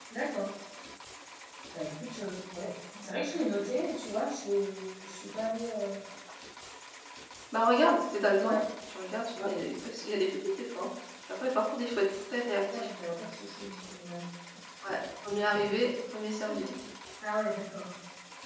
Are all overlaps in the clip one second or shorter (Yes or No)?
Yes